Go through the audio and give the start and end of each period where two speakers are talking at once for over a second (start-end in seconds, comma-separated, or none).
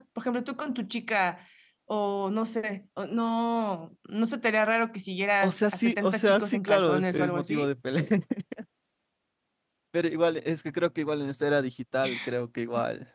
5.4-7.7